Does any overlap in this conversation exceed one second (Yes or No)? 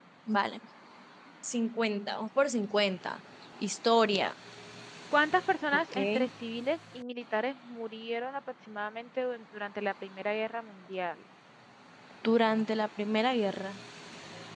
No